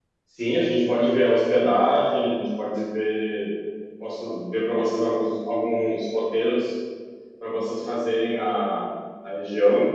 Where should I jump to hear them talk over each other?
none

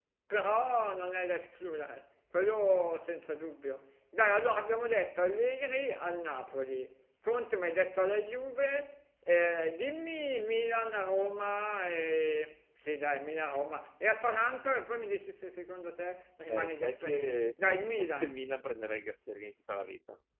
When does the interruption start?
16.5 s

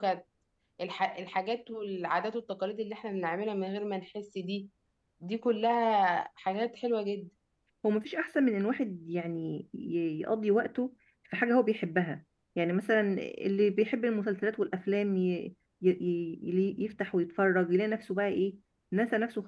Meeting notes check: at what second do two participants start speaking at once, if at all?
none

